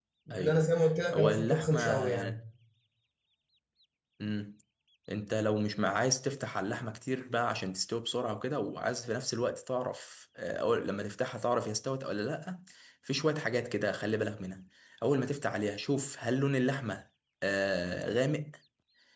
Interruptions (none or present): present